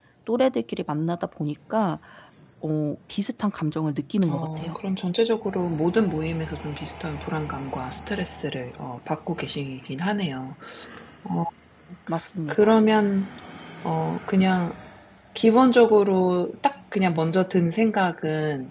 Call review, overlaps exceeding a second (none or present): none